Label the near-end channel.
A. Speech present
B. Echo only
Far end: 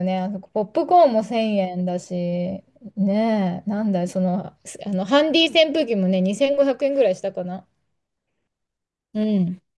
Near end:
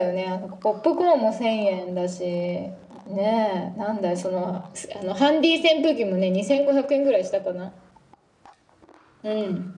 B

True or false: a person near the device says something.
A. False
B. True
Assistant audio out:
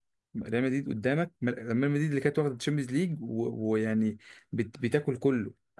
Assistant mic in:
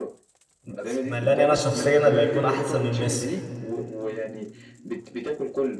B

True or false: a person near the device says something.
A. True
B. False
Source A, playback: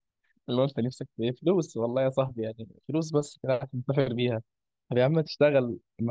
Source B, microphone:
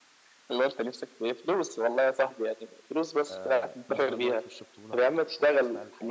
A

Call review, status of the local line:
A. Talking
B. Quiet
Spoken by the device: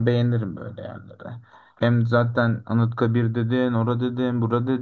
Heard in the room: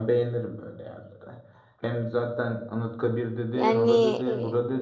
A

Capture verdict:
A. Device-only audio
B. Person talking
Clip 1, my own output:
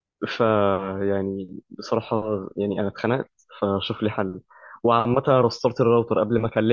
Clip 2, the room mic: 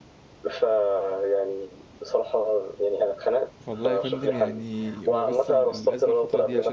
B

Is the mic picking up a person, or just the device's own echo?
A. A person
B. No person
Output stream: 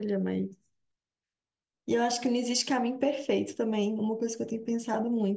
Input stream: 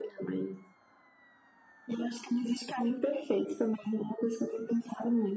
B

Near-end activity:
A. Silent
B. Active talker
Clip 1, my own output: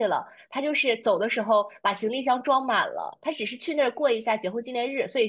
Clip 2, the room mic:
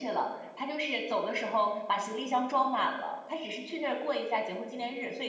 A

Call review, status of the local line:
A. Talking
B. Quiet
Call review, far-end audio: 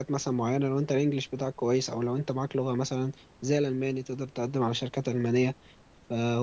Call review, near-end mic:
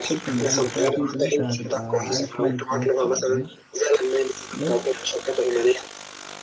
A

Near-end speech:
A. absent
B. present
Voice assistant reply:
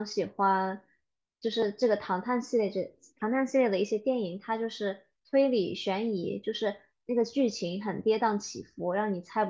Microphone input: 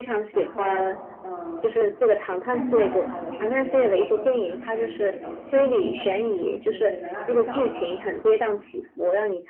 B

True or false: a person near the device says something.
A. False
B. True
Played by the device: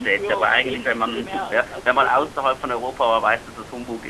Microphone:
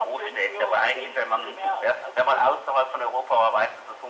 A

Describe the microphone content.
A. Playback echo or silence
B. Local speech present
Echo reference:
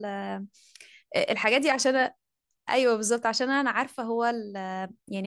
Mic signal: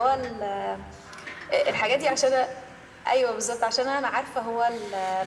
A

